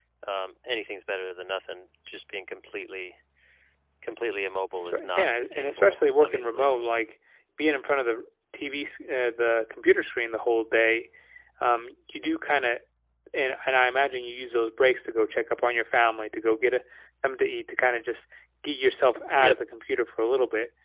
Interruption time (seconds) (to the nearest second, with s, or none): 5 s